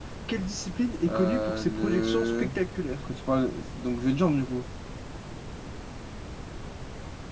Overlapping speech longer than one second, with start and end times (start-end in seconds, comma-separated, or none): 1.1-2.5